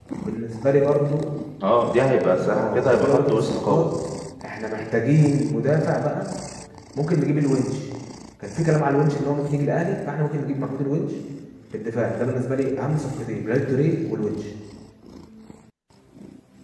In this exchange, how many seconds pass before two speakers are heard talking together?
3 s

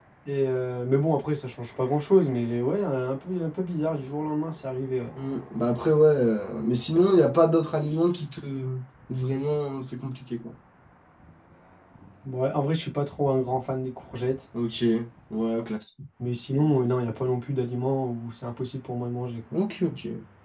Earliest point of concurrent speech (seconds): none

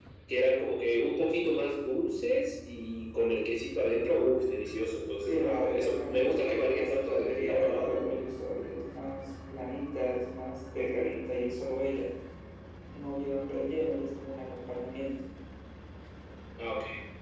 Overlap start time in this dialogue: 5 s

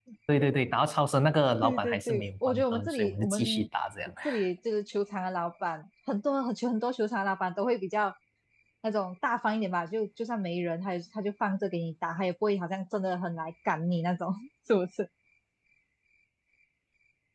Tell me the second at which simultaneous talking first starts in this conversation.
2 s

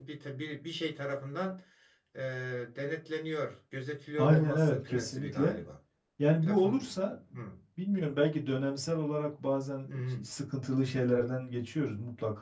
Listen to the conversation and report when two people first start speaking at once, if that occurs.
4 s

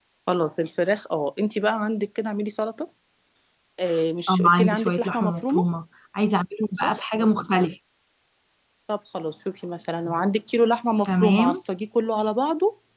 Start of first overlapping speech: 4 s

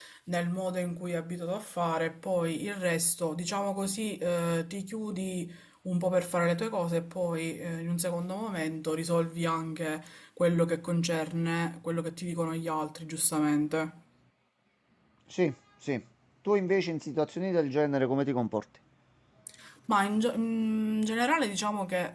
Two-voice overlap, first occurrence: none

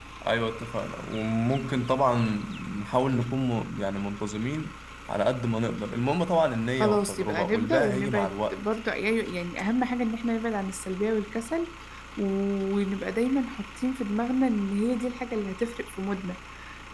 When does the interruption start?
7 s

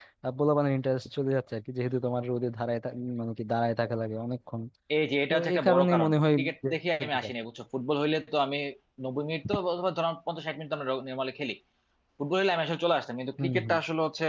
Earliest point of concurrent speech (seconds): 5 s

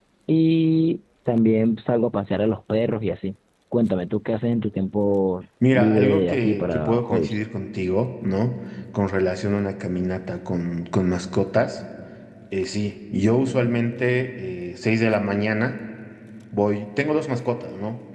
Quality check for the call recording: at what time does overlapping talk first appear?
6 s

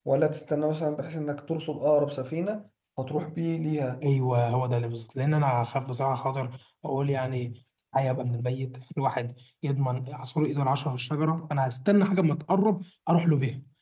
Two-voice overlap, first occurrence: none

